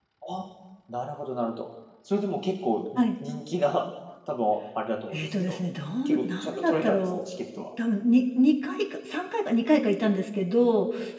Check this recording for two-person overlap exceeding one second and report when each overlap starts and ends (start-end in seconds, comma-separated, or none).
6.0-7.2